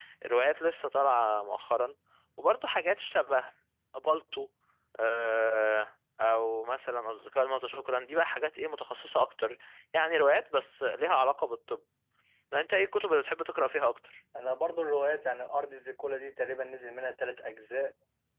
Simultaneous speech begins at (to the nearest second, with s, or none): none